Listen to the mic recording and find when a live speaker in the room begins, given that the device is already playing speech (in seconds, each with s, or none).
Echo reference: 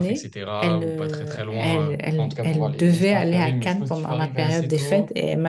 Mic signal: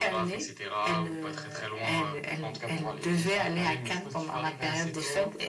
none